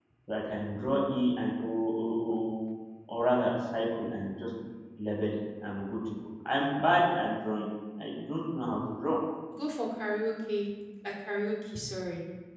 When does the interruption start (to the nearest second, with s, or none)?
none